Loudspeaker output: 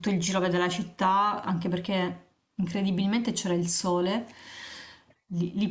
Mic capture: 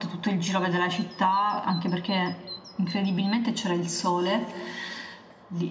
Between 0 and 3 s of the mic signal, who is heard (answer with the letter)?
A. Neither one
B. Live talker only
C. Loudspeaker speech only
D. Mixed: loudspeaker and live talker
C